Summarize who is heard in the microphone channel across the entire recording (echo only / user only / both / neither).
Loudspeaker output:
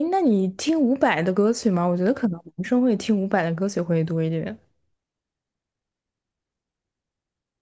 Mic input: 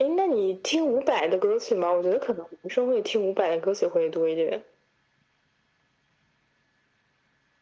echo only